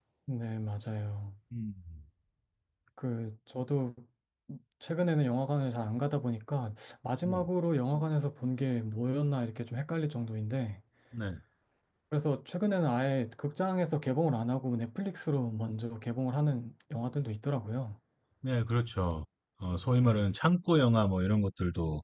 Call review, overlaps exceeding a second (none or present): none